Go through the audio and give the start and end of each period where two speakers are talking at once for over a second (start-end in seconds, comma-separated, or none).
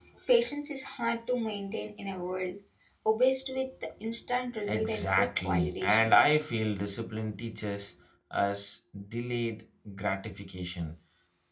4.6-6.4